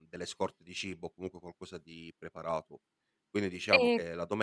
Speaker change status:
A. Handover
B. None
B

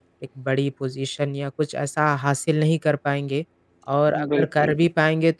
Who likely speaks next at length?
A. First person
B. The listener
A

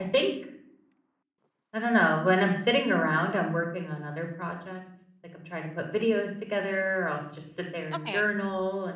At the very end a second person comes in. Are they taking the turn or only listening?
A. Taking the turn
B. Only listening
B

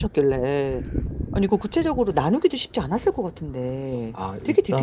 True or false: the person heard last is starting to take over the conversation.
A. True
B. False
A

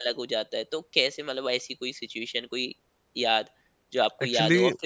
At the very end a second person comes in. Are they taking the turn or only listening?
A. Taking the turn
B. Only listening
B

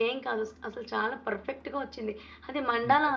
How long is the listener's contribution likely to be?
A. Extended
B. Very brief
B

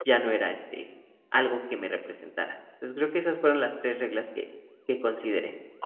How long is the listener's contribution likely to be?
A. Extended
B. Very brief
A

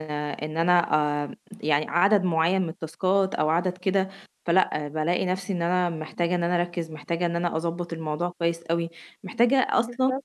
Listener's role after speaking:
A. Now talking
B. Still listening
B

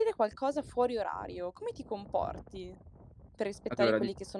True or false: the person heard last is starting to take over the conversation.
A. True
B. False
B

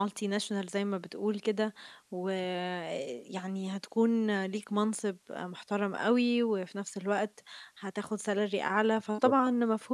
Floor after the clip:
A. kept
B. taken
A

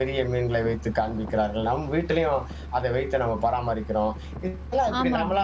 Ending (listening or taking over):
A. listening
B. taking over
A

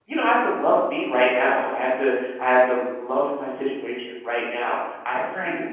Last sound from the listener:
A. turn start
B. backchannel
B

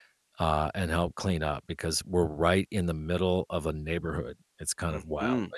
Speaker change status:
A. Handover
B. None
A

